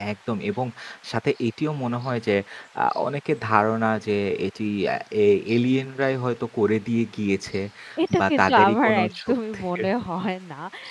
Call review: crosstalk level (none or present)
present